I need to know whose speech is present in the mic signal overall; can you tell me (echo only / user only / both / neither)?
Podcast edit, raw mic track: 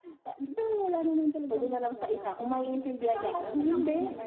both